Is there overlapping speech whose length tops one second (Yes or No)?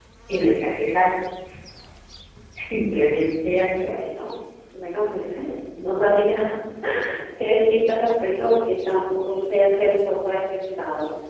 No